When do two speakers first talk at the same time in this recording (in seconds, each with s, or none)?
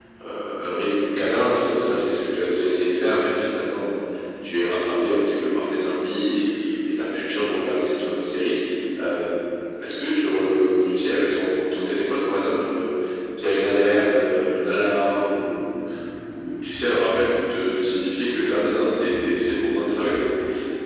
none